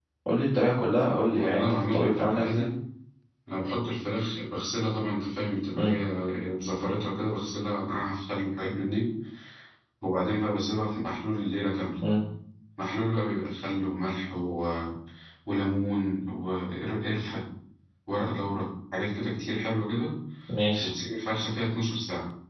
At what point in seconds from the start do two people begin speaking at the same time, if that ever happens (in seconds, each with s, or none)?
1.3 s